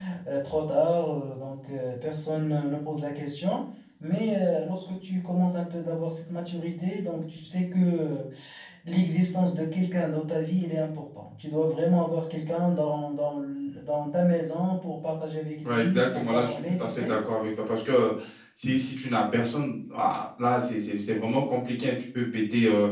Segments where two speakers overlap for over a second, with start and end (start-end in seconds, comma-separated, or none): 15.6-17.2